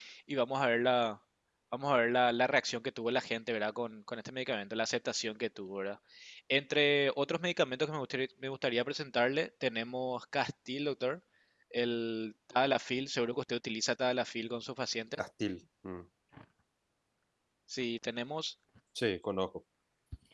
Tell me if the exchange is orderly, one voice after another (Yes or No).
Yes